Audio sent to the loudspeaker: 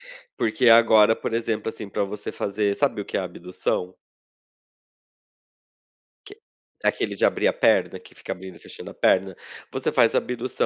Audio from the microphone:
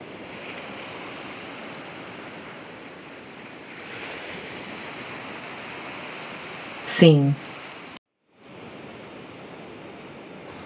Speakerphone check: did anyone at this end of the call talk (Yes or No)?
Yes